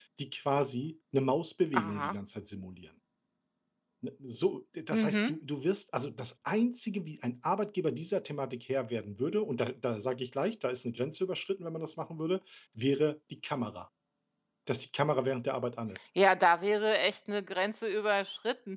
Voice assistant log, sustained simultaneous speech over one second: none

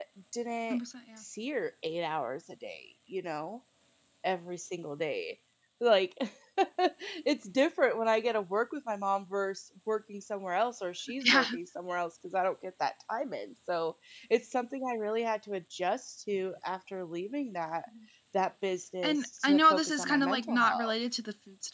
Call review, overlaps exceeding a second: present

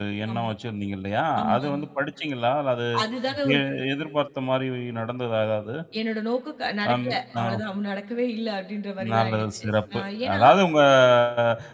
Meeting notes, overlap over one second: present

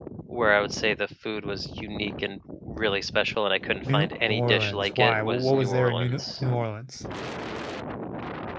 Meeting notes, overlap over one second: present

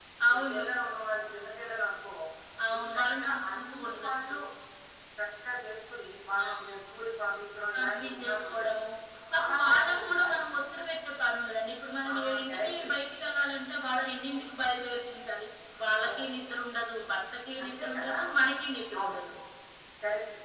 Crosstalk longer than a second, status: present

